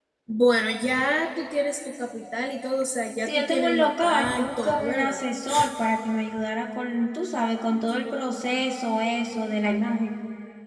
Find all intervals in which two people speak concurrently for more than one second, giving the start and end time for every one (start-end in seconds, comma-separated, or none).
3.2-5.2